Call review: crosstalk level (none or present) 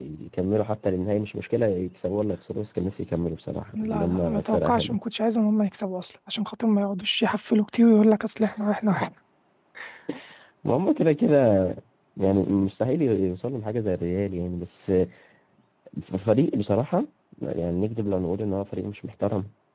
present